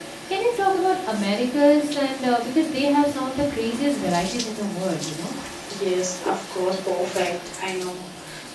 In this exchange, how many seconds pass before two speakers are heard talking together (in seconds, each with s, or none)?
none